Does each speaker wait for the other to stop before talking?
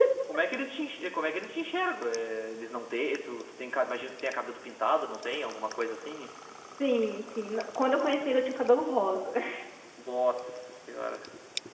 Yes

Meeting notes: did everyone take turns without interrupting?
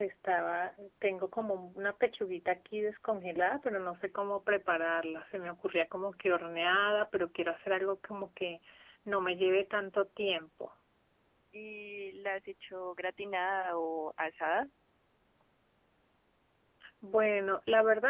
Yes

